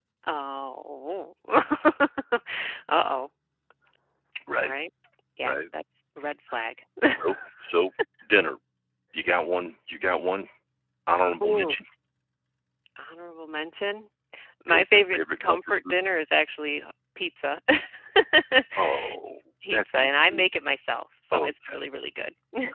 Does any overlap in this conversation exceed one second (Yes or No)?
Yes